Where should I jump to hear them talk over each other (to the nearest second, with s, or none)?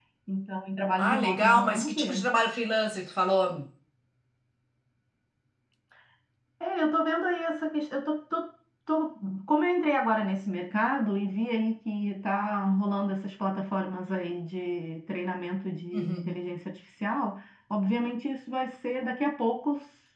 1 s